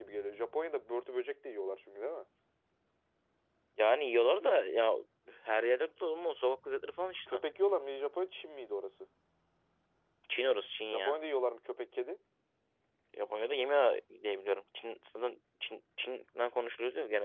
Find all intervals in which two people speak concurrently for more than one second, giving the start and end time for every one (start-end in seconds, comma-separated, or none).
none